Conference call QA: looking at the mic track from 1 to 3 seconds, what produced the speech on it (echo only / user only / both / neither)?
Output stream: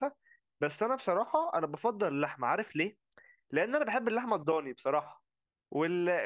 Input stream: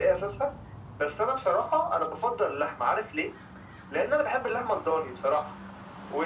echo only